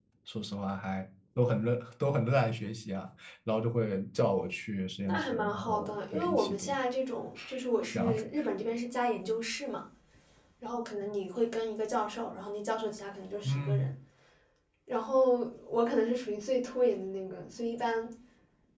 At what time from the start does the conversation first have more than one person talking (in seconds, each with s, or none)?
5.1 s